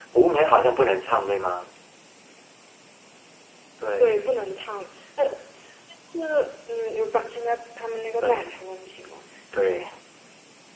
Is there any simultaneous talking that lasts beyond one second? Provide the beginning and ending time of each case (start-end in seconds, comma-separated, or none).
none